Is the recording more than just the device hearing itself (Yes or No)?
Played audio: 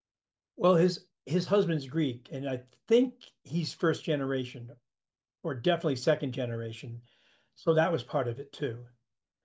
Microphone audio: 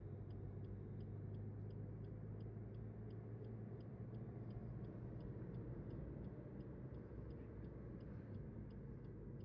No